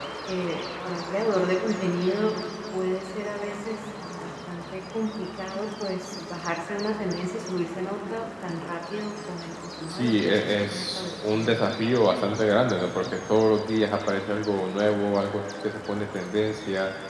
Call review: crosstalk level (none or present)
present